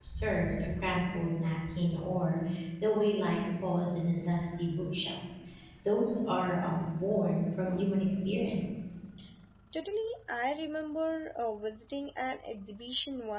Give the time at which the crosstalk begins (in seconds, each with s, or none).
none